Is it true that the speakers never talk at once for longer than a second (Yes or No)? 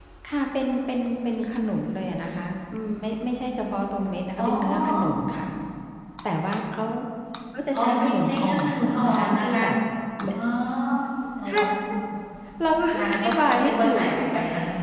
No